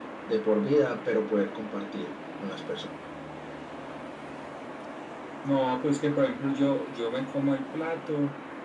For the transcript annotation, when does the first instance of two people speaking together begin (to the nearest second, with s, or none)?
none